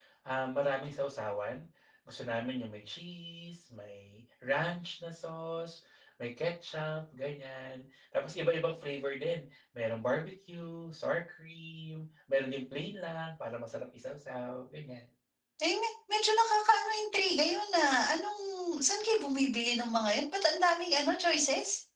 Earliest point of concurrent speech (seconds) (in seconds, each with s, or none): none